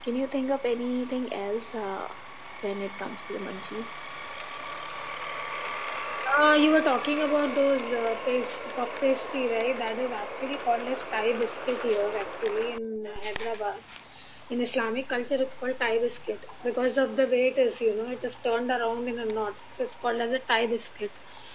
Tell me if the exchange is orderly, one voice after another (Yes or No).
Yes